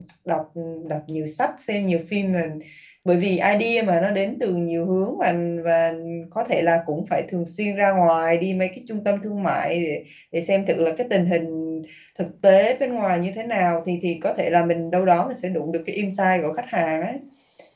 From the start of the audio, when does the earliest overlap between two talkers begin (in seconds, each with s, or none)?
none